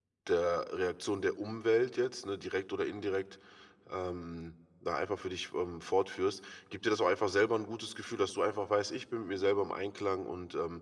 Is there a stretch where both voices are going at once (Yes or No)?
No